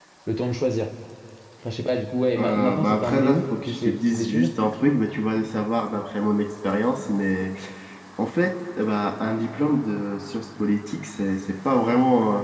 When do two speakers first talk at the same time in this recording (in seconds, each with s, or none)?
2.4 s